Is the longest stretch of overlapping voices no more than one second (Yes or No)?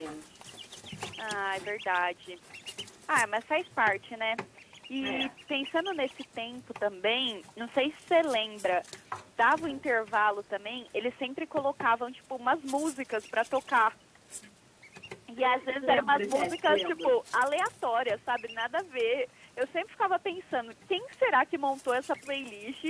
No